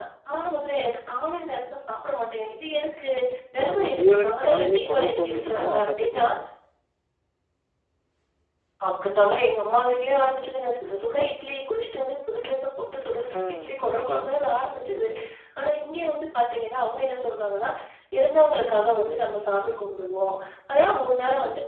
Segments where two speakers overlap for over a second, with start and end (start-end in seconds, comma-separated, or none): 3.6-6.3